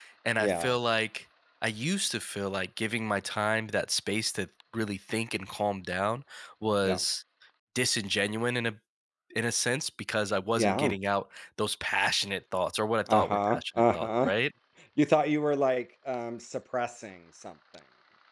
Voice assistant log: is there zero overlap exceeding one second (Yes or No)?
No